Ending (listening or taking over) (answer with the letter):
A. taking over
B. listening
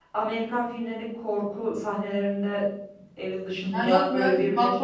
A